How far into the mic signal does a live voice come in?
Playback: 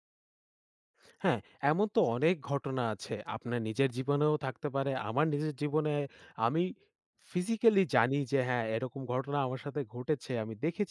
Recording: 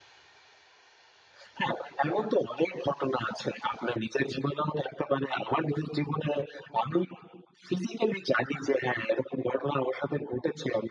none

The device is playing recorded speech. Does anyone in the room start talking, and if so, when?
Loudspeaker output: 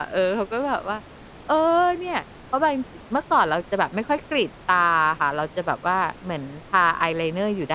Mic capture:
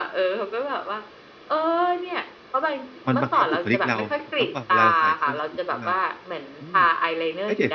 3.1 s

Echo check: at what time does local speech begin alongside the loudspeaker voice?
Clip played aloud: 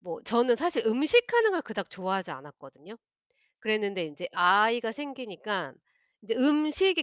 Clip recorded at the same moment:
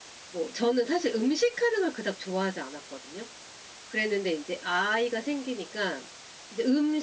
none

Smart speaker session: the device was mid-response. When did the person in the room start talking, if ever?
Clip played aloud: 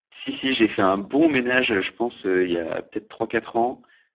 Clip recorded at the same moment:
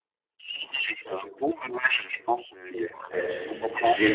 3.1 s

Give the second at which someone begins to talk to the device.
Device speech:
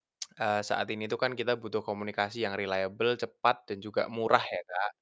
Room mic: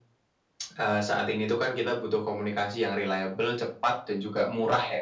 none

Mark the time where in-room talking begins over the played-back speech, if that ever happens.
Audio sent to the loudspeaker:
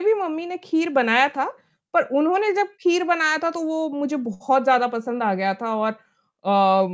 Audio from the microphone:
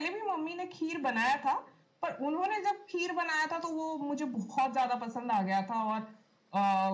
none

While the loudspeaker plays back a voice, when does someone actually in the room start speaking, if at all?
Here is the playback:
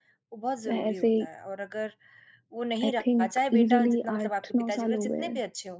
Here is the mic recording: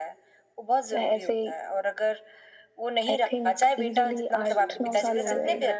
4.5 s

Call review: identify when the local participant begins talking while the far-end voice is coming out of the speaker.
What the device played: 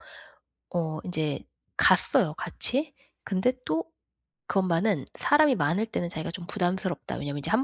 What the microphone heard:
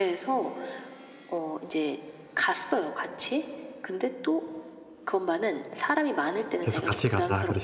6.6 s

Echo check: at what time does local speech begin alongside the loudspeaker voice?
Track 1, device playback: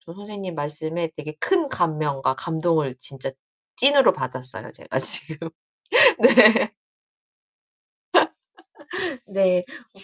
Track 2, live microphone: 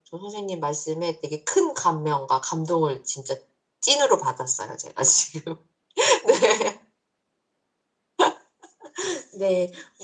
none

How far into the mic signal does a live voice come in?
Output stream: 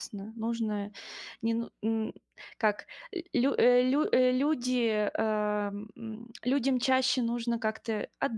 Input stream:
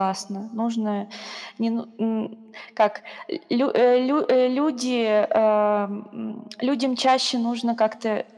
none

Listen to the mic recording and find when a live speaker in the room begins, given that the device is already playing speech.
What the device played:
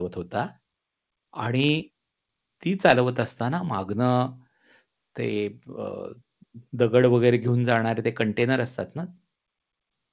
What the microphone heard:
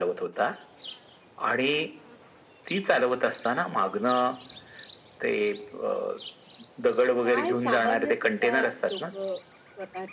7.2 s

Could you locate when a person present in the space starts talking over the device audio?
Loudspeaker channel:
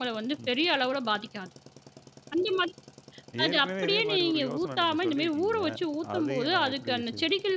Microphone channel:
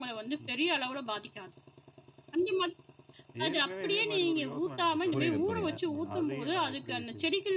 5.1 s

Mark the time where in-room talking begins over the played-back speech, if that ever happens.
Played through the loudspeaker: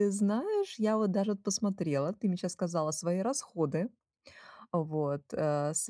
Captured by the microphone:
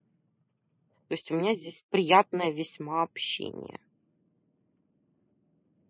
1.1 s

